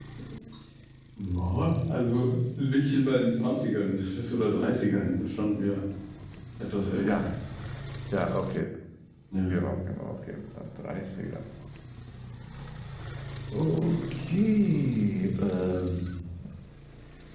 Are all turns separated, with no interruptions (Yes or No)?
Yes